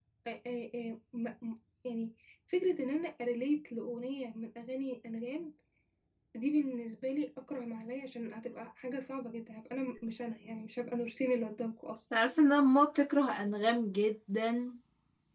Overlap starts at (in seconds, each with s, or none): none